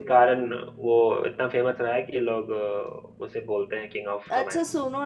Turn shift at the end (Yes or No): Yes